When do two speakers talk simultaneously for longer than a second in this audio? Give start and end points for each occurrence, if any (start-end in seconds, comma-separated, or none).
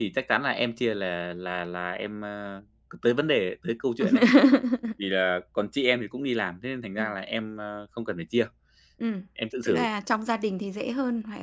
none